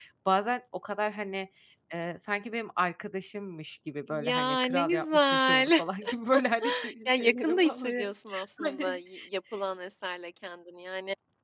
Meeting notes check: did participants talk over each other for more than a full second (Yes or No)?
Yes